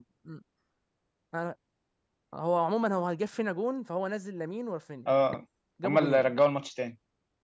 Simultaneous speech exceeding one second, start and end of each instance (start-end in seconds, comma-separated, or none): none